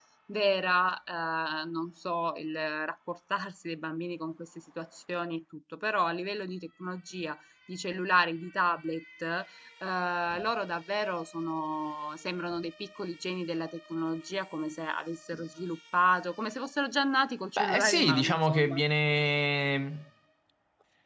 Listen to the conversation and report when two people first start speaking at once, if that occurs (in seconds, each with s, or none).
17.6 s